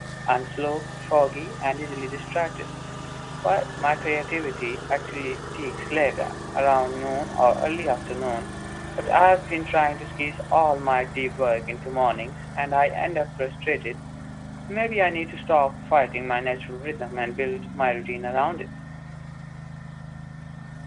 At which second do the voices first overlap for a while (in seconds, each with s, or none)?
none